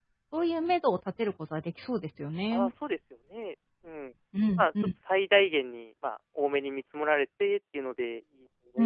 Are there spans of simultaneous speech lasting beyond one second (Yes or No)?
No